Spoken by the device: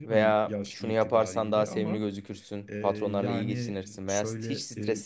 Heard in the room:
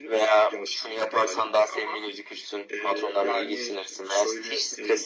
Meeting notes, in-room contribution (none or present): none